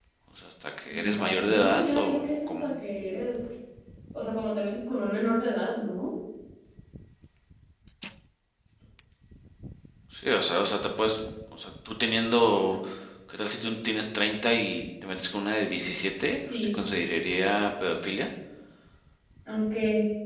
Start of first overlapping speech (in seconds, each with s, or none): 0.9 s